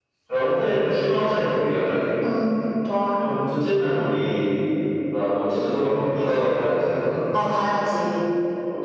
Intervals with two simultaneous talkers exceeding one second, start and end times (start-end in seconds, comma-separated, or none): none